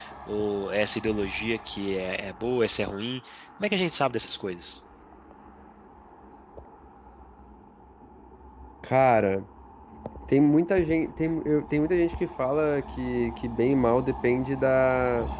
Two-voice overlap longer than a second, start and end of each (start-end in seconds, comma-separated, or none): none